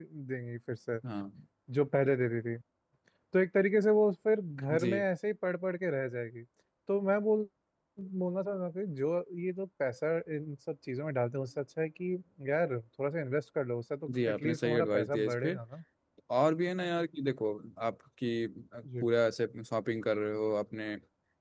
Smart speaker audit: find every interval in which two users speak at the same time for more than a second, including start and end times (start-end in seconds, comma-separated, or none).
14.2-15.6